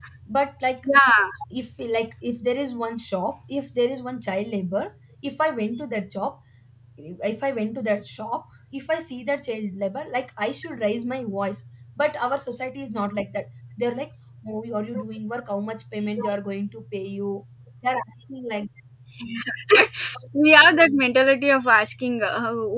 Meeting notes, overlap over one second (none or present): none